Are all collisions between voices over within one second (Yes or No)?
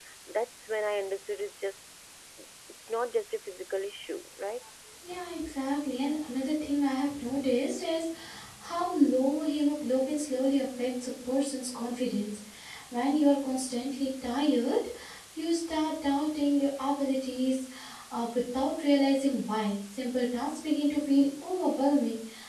Yes